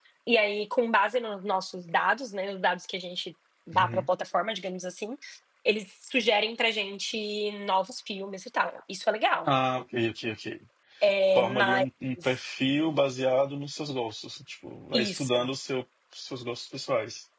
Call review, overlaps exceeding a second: none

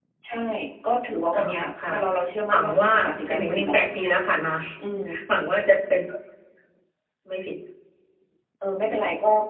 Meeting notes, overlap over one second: present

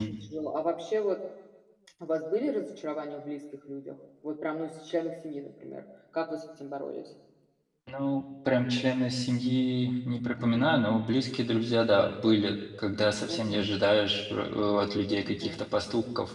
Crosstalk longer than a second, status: none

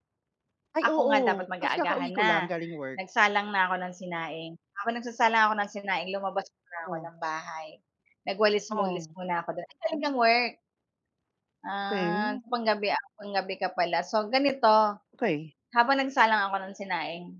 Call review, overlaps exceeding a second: present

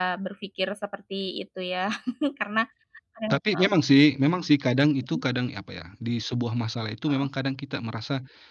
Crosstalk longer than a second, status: none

